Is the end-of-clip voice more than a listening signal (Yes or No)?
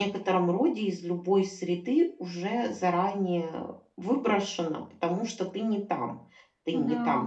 No